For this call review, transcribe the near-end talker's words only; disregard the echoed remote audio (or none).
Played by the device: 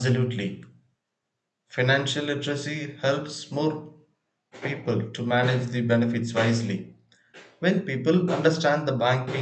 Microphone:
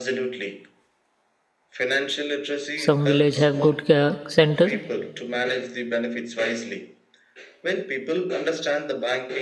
some village have good uh, centers